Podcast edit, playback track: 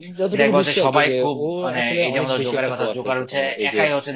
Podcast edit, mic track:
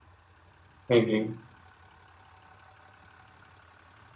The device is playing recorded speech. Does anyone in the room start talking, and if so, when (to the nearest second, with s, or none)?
1 s